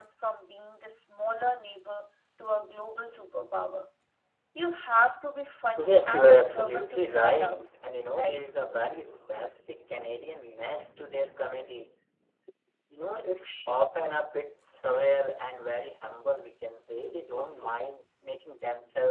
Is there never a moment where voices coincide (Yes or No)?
No